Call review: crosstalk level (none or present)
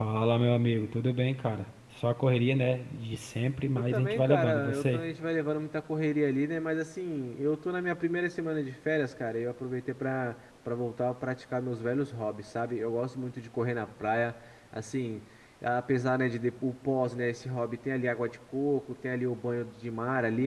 present